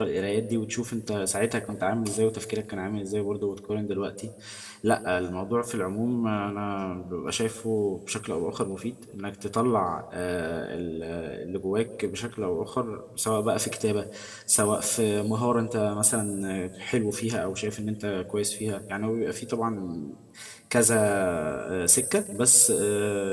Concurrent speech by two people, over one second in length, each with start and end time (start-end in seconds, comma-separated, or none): none